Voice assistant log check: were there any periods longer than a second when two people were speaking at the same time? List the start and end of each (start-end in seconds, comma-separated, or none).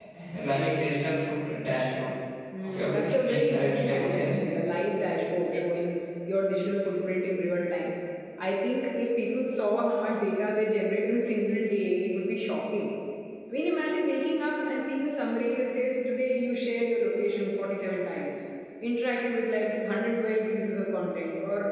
2.6-4.4